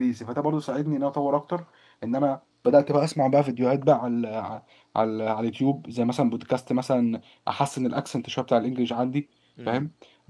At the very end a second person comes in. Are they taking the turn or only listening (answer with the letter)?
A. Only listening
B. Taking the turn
A